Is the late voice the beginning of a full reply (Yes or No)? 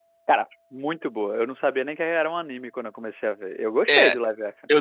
Yes